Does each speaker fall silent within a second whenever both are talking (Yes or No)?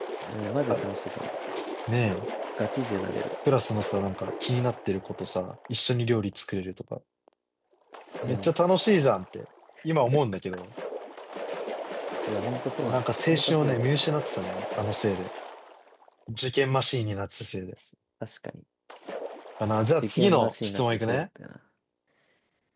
No